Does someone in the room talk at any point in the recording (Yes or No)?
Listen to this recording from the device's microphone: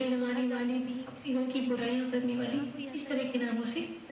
Yes